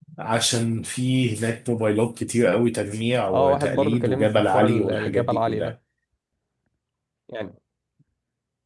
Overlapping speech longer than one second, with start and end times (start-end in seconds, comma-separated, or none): 3.3-5.7